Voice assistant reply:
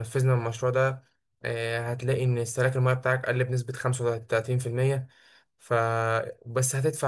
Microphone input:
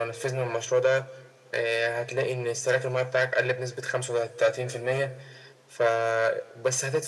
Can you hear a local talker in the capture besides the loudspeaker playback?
No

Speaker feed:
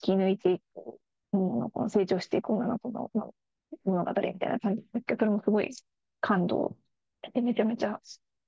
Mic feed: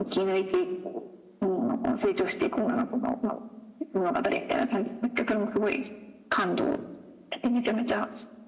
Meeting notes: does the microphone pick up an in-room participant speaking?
No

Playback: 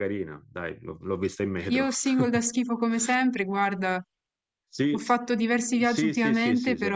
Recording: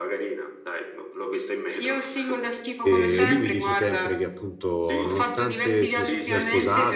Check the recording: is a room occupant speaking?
Yes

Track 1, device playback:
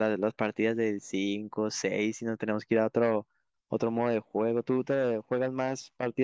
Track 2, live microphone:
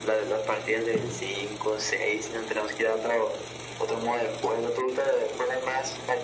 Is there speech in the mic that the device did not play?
No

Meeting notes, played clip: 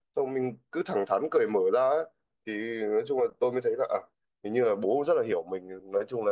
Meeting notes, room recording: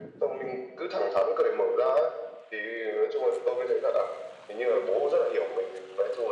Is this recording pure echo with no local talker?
Yes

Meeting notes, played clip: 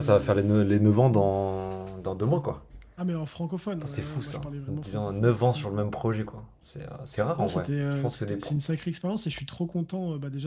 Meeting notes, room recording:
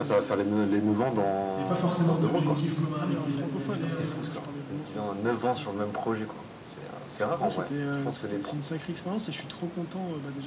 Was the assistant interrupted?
Yes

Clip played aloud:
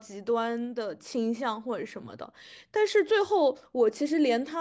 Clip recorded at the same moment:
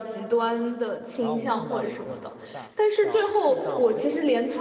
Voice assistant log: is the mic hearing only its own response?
No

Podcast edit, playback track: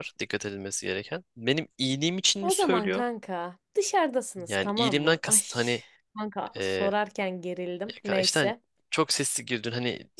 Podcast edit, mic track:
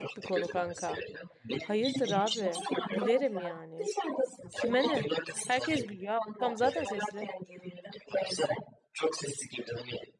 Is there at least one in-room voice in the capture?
Yes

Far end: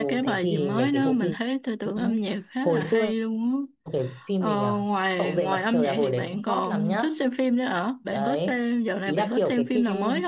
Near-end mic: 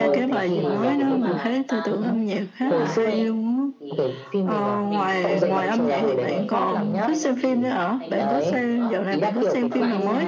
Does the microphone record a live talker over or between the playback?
Yes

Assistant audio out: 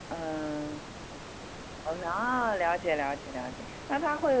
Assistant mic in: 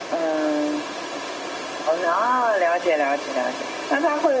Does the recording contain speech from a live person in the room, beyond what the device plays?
No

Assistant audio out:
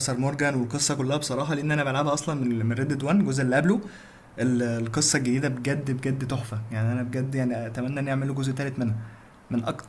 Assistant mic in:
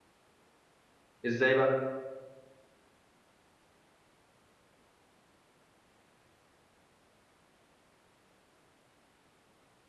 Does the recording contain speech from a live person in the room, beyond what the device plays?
Yes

